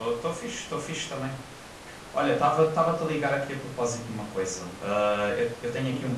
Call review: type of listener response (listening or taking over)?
listening